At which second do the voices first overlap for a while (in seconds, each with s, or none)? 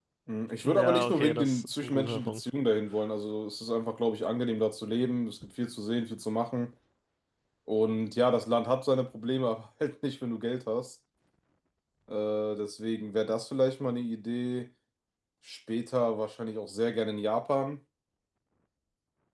0.6 s